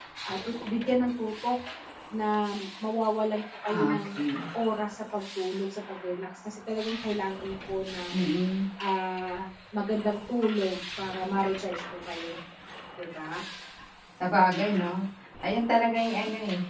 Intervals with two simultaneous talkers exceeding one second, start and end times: none

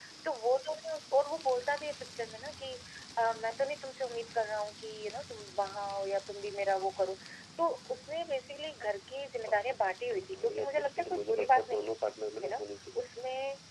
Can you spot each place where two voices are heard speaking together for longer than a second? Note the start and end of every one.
10.4-11.9

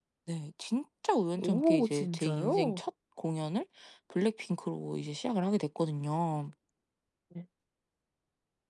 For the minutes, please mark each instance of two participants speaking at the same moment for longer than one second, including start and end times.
1.4-2.8

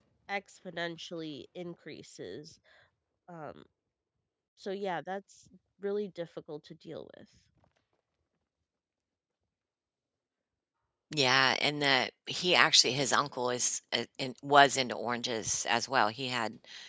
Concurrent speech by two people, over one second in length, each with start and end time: none

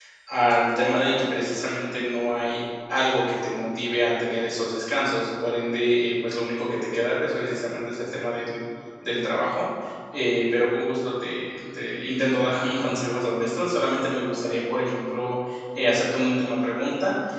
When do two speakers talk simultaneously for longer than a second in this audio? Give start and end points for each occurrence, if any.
none

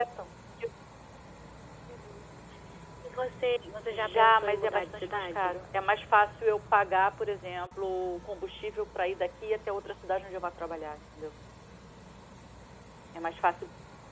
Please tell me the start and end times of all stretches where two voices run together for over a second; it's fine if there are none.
3.9-5.5

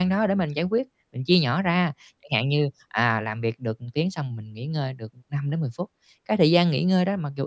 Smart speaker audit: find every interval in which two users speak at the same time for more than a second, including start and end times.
none

